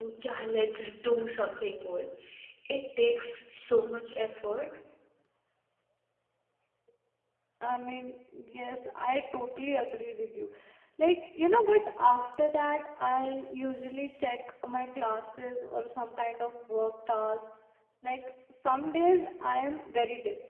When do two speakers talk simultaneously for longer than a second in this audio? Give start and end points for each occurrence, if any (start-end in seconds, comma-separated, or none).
none